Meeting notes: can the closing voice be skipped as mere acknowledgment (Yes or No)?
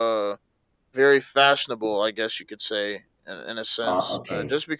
Yes